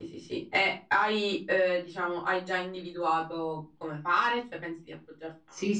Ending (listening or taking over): taking over